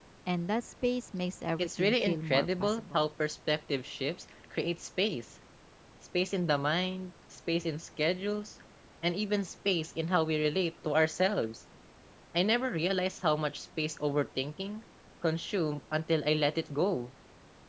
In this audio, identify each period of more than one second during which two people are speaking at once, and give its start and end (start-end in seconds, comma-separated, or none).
1.6-3.0